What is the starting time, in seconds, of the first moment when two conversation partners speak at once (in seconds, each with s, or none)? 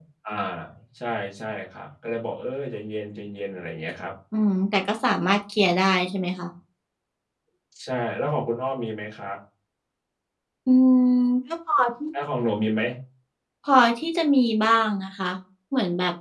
none